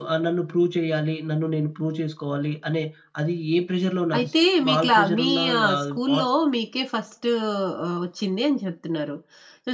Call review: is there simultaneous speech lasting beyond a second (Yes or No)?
Yes